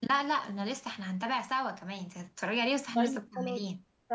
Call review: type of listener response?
taking over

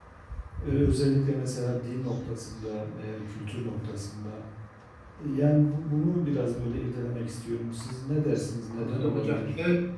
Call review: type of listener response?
taking over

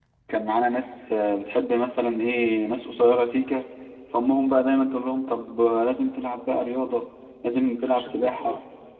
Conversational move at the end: listening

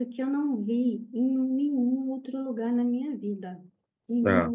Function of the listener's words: listening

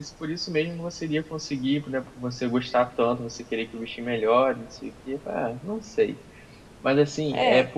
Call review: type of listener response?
listening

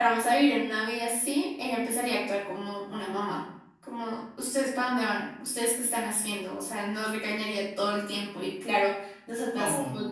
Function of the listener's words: listening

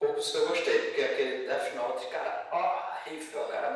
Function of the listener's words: taking over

